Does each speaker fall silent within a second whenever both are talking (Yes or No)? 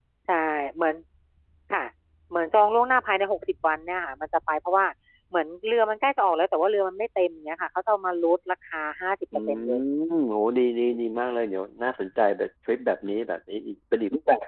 Yes